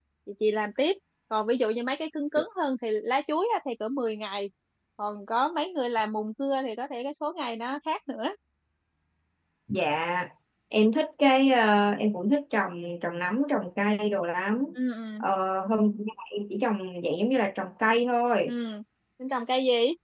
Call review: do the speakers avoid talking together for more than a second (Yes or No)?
Yes